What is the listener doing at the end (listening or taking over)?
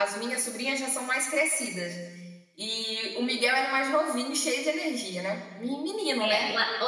taking over